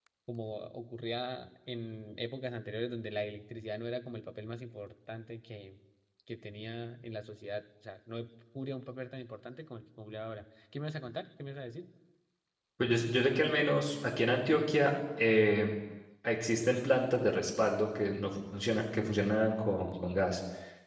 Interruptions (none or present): none